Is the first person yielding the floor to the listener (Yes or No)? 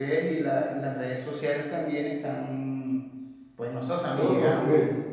No